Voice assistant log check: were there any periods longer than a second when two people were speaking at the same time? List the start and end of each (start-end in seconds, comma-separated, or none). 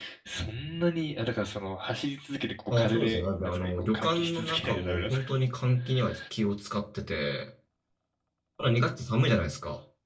2.7-5.4